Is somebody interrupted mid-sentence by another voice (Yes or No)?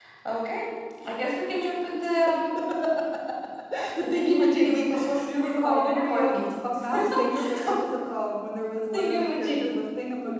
Yes